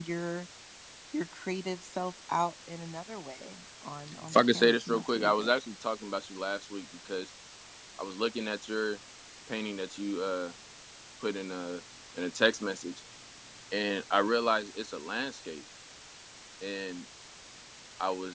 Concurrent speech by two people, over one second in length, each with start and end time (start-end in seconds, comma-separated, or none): 4.3-5.5